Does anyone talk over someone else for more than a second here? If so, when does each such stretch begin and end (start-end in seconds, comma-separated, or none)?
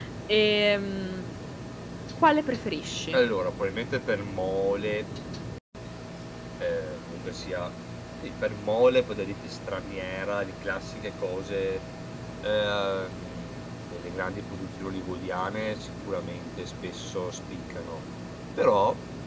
none